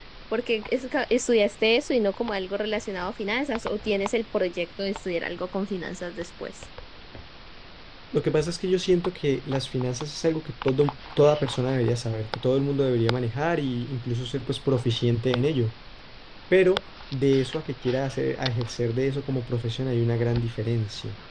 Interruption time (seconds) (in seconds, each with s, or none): none